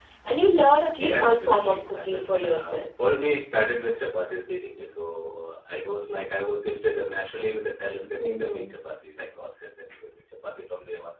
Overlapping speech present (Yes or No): Yes